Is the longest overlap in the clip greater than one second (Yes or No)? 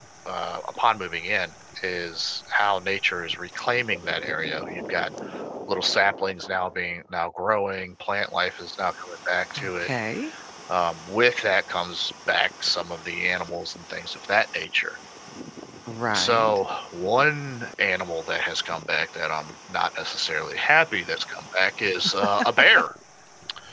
No